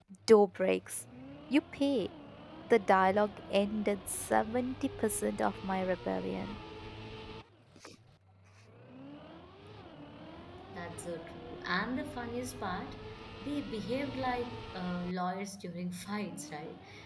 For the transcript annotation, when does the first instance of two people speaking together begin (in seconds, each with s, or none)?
none